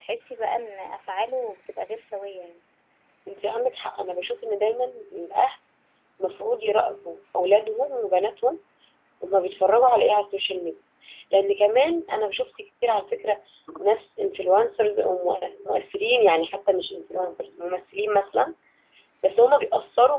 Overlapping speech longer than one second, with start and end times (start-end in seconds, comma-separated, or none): none